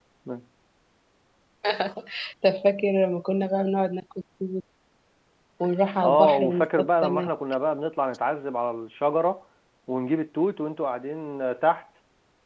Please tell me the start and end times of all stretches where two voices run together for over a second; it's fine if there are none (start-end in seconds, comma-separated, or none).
6.0-7.3